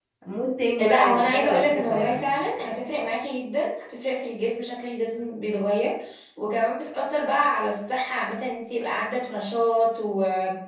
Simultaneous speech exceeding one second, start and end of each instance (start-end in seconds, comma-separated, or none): 0.8-2.4